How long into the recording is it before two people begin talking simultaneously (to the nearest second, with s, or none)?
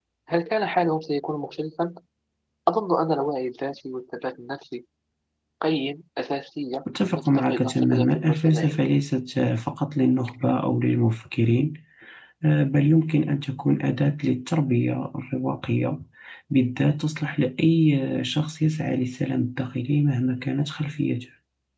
7 s